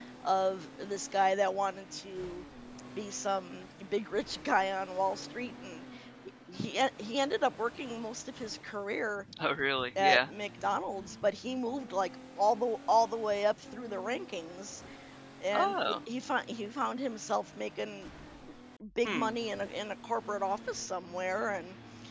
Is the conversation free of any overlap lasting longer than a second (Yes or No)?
Yes